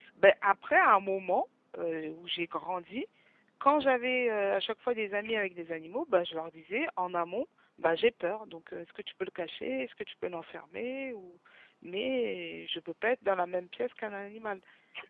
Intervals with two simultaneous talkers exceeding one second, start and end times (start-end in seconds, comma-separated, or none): none